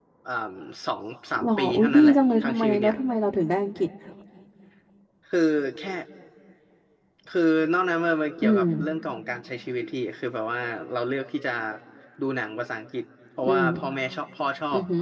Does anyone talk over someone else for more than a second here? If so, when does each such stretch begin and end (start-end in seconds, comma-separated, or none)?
1.4-2.9